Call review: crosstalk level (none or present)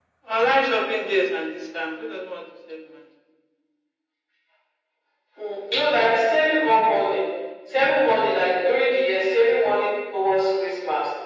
none